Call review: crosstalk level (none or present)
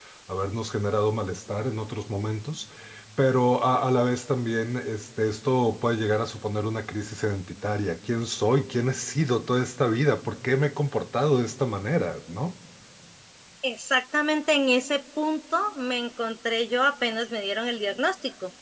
none